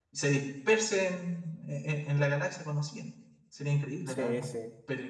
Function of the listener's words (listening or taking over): taking over